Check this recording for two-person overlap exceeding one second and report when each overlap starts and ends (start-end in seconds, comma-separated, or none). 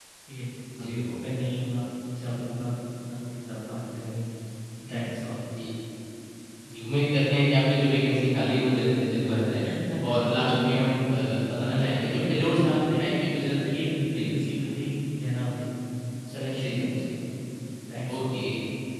11.6-13.1